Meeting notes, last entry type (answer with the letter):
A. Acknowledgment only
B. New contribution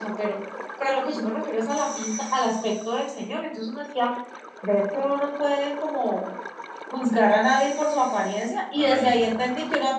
A